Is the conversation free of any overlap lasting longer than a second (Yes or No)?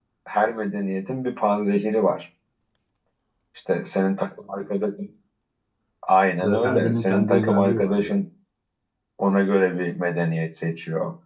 No